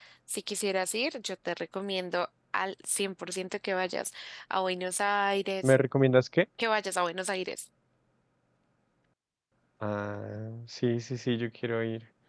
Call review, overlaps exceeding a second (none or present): none